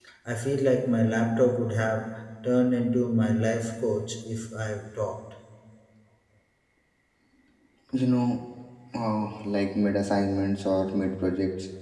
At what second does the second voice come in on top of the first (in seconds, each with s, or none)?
none